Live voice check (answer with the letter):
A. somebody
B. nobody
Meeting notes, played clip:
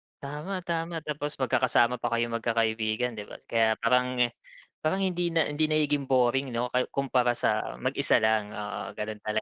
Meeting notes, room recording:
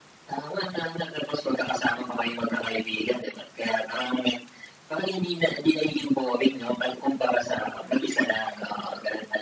B